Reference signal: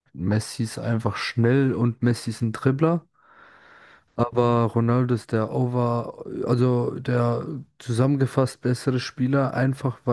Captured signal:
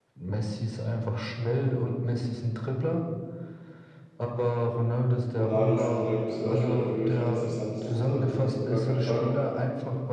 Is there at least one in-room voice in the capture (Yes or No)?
Yes